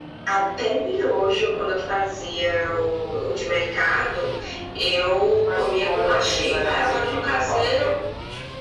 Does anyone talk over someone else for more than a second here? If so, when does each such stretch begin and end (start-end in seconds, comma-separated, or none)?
5.4-7.9